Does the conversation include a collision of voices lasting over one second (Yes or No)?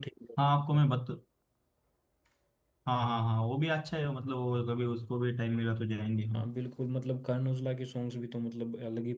No